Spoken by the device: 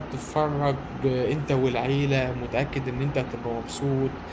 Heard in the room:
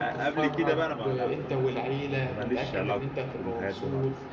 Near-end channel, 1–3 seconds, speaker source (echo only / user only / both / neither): both